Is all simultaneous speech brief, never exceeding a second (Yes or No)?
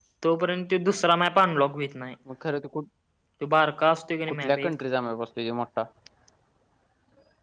Yes